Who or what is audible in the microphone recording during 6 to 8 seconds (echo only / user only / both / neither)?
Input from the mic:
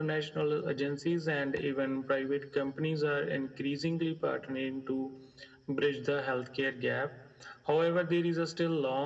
echo only